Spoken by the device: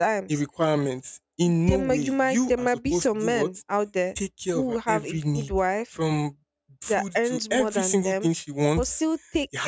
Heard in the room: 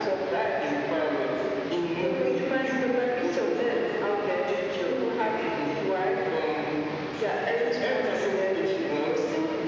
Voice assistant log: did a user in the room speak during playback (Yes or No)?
No